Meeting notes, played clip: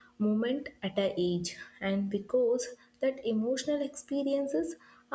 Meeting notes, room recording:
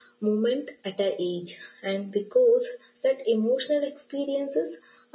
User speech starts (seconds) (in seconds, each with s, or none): none